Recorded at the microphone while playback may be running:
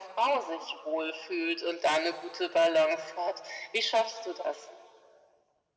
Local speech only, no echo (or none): none